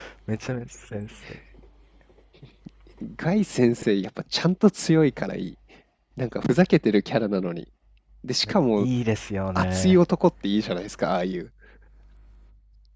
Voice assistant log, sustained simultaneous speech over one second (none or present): none